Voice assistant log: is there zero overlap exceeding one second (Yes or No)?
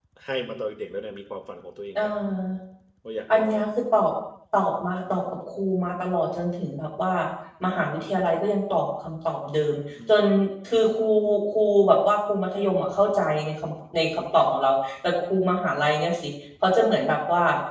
Yes